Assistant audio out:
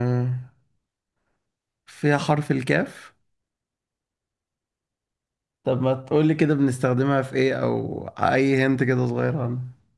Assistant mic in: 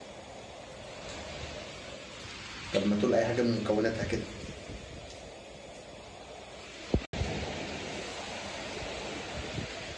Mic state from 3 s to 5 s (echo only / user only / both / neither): user only